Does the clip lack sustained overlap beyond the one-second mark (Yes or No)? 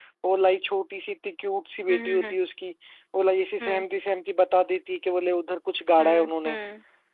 Yes